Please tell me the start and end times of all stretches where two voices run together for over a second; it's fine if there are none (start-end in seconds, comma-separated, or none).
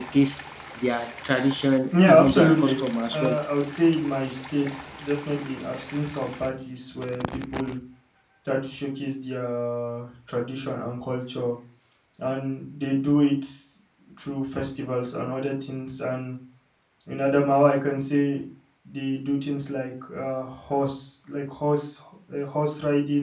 1.9-3.4